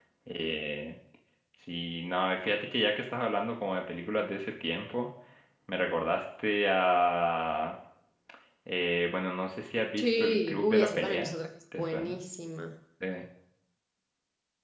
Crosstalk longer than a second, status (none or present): present